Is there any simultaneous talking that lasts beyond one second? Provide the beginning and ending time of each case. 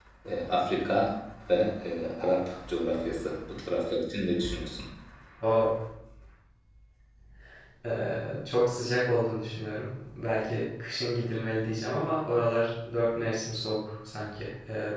none

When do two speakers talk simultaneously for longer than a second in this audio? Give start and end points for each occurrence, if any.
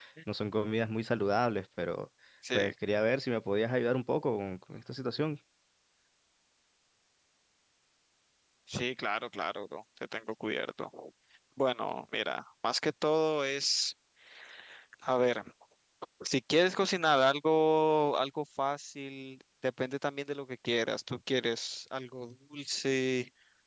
none

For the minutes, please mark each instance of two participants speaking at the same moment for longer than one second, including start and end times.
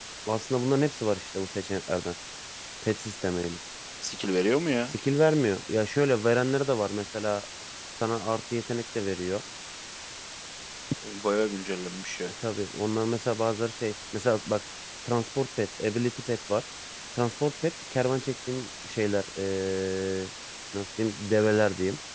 none

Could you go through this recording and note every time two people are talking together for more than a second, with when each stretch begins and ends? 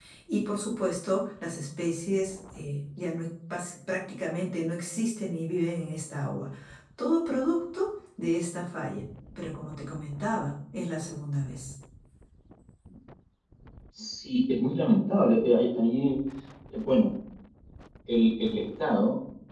none

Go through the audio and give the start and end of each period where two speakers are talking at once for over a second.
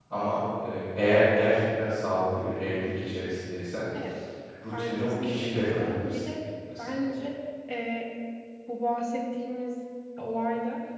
4.7-6.2

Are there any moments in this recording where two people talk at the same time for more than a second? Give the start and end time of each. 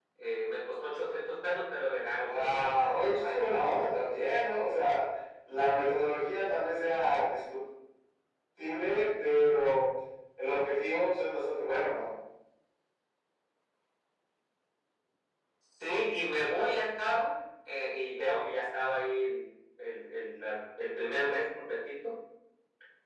2.2-3.5

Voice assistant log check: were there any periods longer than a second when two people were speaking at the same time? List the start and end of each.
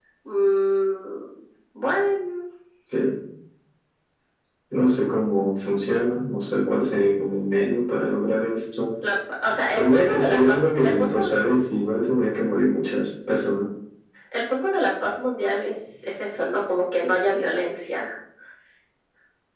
9.8-11.3

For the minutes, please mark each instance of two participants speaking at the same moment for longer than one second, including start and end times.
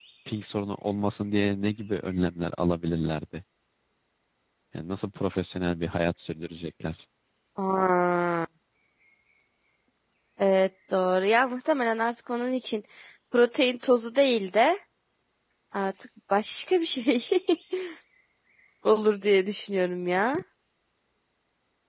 none

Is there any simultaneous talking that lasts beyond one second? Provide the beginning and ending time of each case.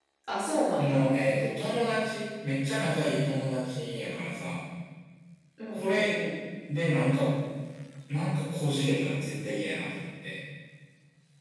none

